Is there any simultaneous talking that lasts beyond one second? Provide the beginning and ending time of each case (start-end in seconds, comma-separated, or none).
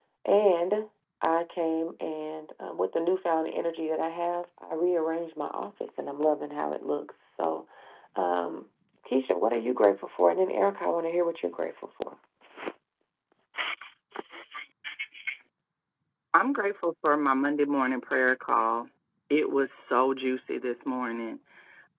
none